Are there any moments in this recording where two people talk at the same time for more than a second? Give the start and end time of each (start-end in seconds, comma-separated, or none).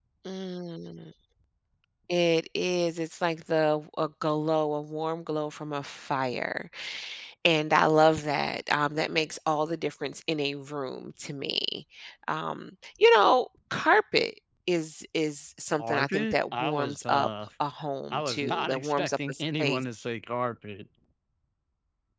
15.8-17.3, 18.1-19.8